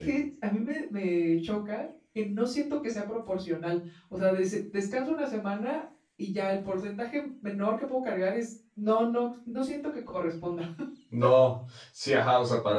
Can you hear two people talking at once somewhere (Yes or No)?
No